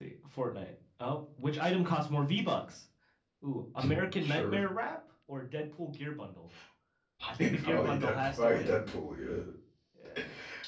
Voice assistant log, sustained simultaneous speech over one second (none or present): present